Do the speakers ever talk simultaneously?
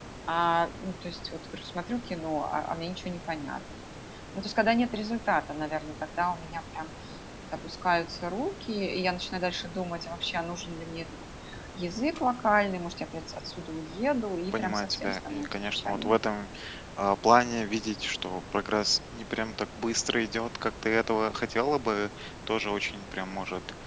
Yes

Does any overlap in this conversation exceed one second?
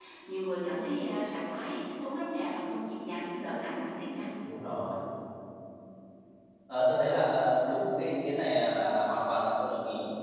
No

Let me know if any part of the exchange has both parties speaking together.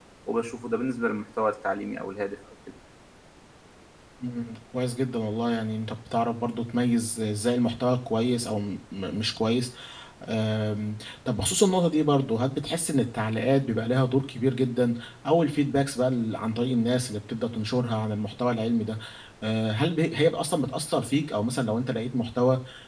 No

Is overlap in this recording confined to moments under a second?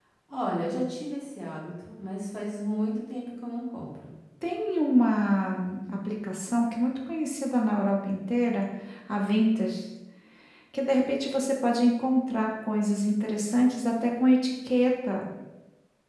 Yes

